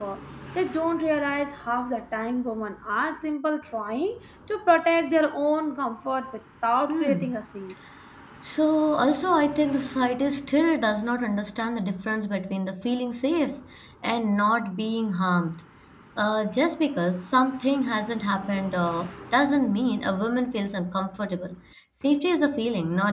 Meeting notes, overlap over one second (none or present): none